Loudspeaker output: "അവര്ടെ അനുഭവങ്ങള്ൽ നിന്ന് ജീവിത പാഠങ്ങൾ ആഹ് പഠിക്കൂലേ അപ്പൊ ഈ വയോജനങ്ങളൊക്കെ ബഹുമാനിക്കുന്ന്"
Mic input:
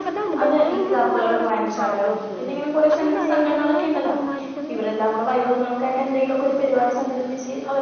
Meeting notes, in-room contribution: present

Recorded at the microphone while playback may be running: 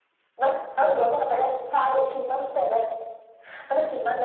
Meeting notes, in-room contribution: none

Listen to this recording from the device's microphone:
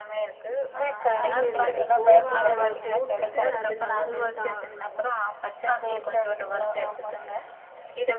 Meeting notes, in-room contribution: present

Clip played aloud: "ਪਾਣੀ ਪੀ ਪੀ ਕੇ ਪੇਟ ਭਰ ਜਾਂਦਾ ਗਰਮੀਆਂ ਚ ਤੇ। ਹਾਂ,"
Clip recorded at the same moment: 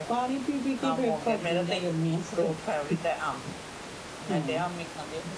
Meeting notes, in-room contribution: present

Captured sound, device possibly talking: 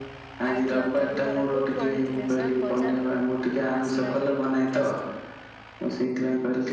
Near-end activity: present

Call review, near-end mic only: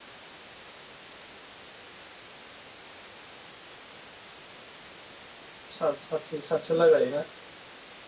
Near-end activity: present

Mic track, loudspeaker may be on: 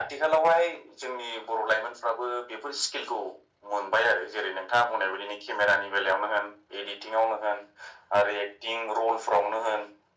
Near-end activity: none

